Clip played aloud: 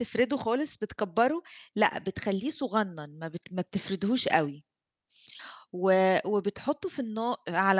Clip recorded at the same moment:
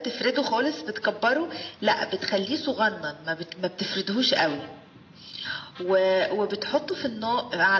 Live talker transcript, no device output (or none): none